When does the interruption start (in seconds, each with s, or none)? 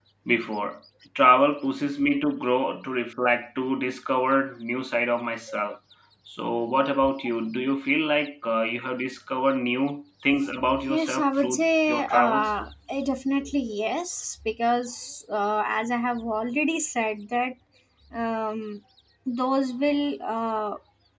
10.9 s